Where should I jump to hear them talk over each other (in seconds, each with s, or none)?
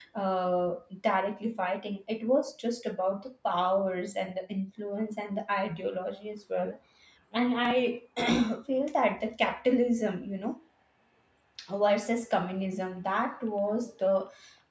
none